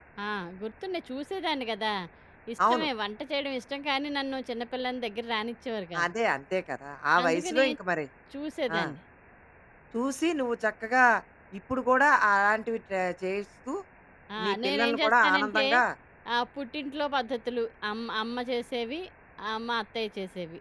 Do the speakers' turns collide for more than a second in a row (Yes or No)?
Yes